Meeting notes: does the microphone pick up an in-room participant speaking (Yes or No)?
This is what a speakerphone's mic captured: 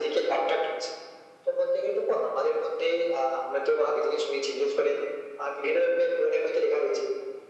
No